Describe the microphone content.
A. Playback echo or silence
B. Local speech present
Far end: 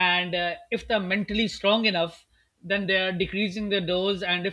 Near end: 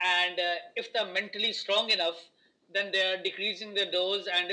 A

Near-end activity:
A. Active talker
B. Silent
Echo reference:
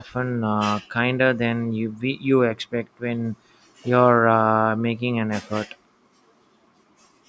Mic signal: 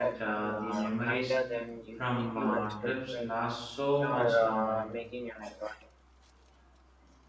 A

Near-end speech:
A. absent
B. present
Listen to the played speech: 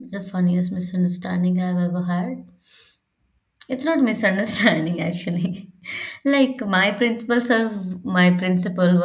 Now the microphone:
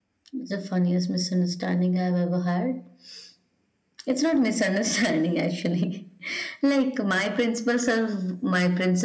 A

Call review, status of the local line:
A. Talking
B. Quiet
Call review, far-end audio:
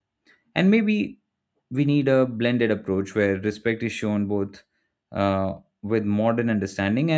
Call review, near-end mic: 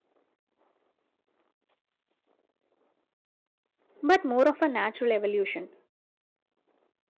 A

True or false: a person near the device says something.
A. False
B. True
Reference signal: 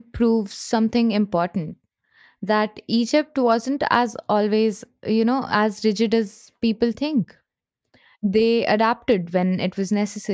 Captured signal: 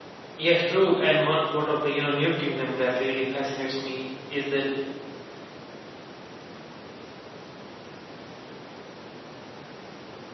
B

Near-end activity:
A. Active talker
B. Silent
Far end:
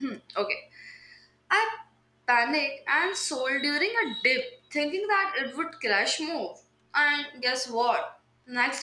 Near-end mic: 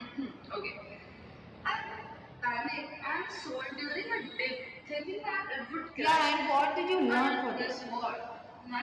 A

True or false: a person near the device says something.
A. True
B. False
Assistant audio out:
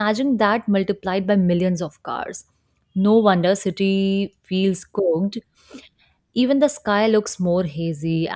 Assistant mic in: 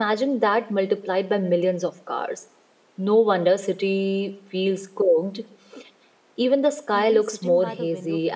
A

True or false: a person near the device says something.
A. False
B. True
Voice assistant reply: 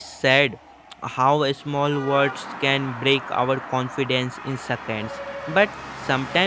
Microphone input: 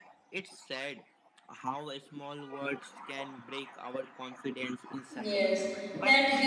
B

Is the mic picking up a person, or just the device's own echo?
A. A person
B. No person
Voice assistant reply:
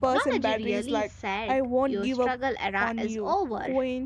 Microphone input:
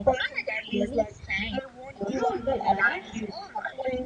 A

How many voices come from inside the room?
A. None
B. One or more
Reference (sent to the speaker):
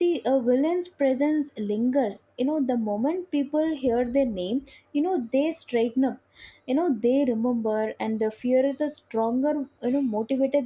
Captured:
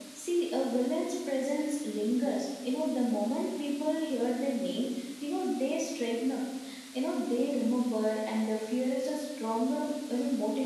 A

